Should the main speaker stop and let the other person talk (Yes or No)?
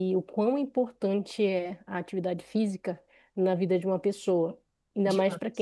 No